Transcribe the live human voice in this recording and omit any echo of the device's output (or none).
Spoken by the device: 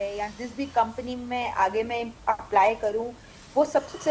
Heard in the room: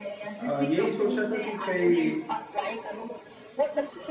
आ, यही सोच रहा था कि कई